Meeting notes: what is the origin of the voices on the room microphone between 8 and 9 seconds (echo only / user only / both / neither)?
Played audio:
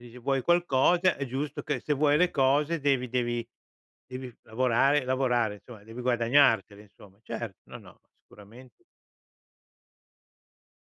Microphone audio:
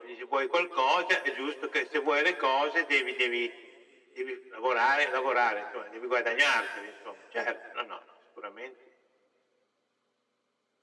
echo only